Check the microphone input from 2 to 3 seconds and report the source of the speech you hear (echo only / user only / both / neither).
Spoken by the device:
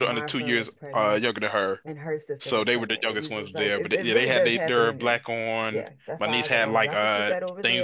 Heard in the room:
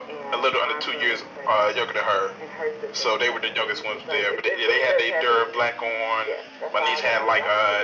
echo only